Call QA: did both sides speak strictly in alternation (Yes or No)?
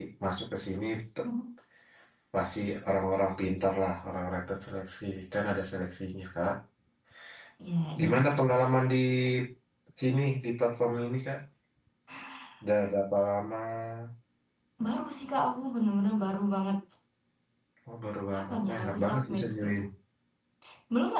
No